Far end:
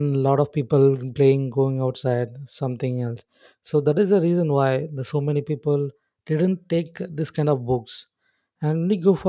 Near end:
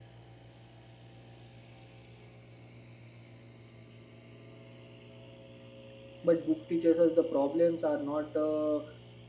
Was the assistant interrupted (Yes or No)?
Yes